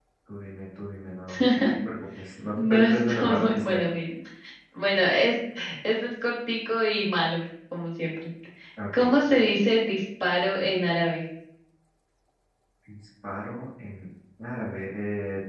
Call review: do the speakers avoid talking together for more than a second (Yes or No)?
No